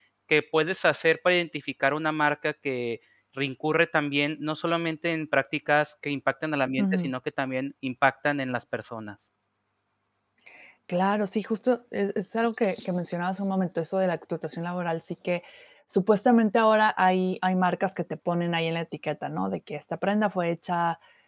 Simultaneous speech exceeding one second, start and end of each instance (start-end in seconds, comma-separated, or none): none